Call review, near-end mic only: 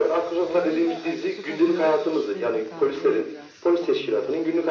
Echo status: present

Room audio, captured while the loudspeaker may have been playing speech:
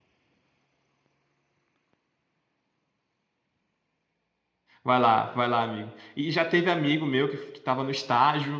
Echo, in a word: none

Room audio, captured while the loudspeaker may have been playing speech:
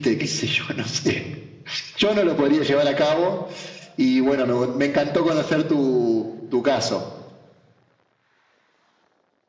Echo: present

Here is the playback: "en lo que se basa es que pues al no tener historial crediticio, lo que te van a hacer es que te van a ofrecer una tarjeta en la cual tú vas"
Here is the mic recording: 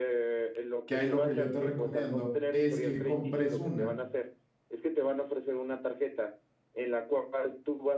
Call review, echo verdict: present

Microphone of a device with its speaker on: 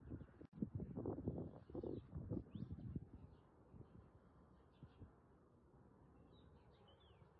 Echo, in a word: none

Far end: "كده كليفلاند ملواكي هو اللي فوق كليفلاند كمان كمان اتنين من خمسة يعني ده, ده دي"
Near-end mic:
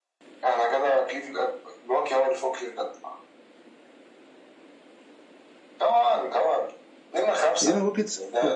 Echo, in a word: present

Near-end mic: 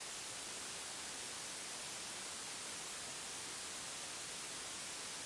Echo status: none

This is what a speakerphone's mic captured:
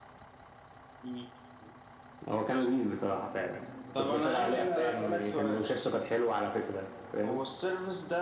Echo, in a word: present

